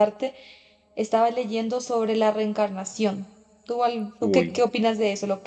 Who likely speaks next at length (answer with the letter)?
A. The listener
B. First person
B